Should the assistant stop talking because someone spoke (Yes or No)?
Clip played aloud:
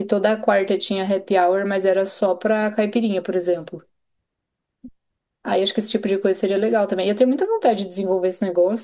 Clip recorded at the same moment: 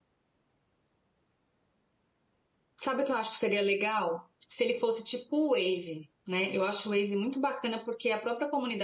Yes